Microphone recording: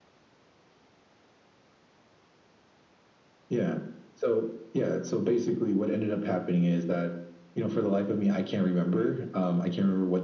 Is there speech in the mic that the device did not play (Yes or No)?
No